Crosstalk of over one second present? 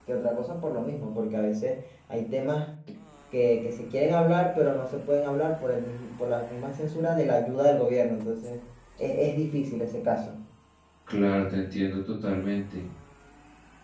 No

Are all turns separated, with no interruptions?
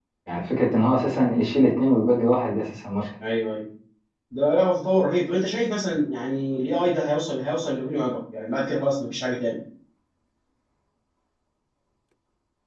Yes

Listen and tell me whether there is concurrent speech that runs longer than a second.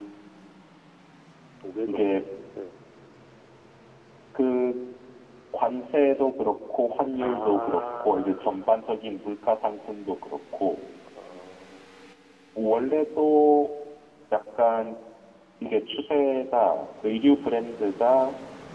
Yes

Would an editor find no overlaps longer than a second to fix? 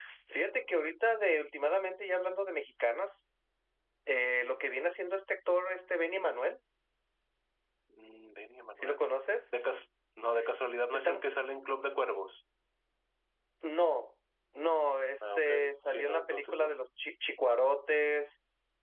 No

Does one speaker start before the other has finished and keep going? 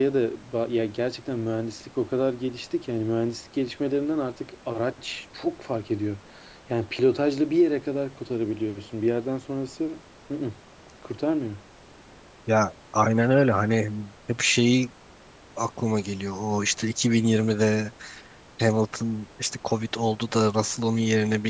No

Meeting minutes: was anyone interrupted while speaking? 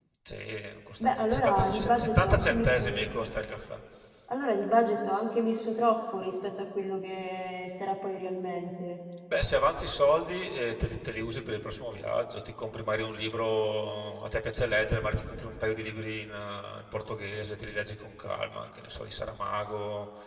Yes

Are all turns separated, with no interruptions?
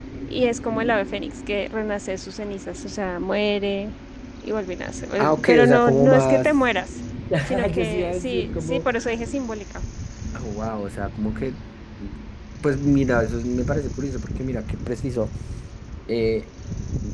No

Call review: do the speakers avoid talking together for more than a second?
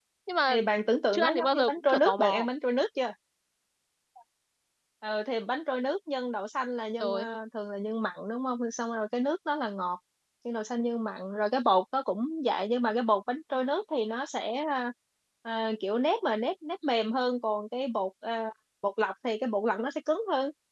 No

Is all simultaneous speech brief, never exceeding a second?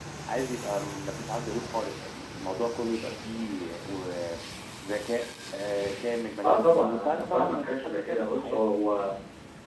No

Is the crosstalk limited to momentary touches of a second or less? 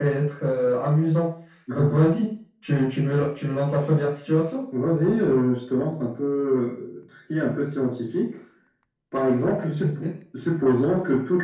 Yes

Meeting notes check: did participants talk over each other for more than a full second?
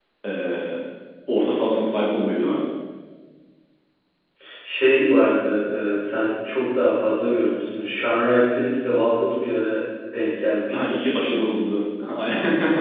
No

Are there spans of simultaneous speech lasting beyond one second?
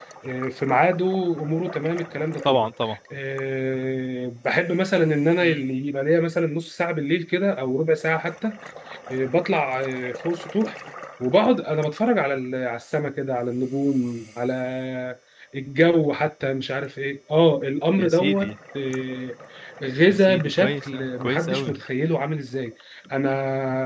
Yes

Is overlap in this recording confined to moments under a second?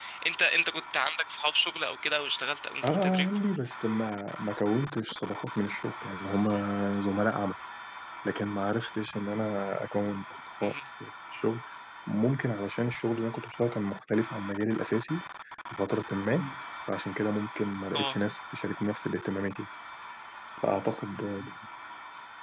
Yes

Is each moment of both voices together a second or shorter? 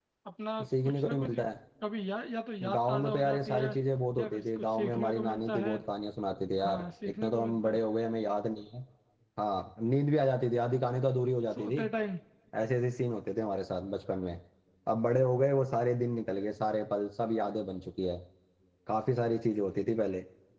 No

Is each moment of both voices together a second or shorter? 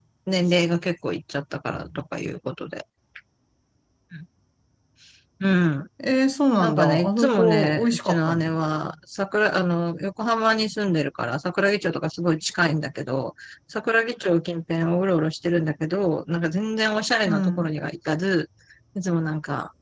No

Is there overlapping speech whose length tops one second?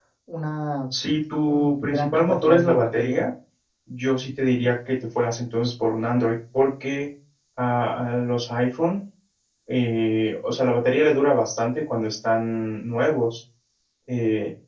Yes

